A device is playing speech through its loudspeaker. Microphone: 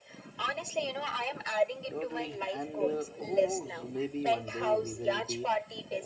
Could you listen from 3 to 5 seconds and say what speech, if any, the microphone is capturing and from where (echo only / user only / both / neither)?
both